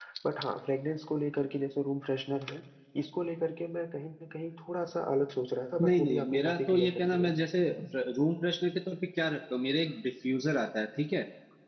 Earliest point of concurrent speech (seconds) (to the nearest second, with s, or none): 6 s